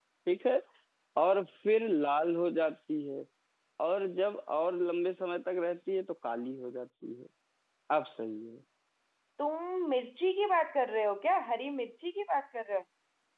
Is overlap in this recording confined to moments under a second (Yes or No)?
Yes